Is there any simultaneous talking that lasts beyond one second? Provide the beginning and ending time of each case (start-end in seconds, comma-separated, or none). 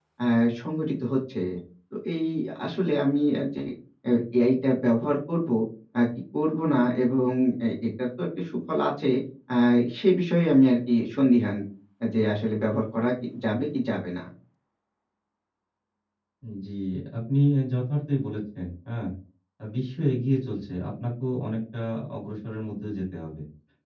none